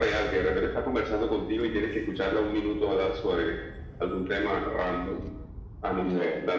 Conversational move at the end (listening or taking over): listening